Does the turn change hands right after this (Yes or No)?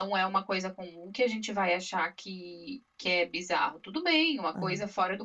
No